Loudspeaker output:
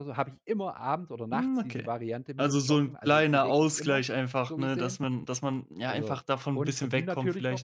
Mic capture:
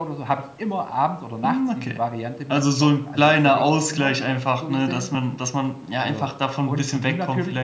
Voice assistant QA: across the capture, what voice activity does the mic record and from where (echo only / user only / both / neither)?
echo only